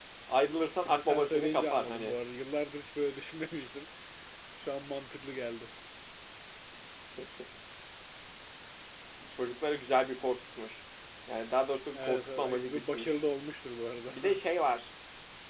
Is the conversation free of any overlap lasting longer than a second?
No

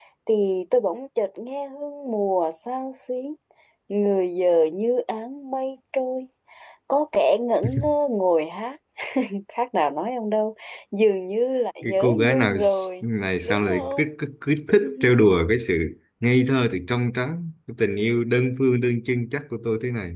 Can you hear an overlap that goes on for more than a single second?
Yes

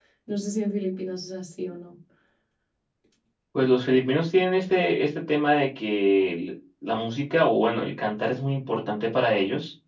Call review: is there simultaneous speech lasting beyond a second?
No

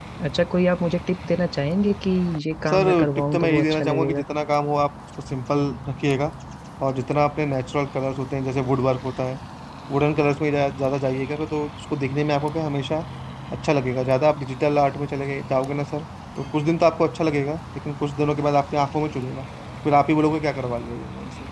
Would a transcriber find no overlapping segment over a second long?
No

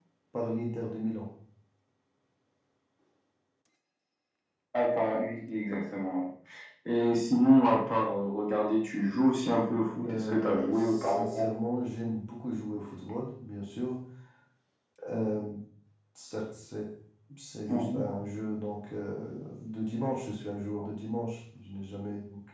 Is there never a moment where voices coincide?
No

